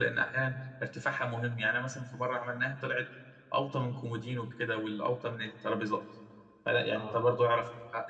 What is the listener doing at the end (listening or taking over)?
listening